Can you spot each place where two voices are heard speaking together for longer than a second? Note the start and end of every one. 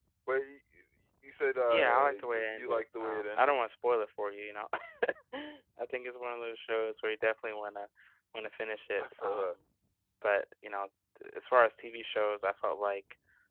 1.6-3.5

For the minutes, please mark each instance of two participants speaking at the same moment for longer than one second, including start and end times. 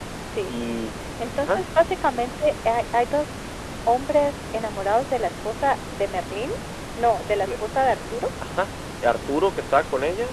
none

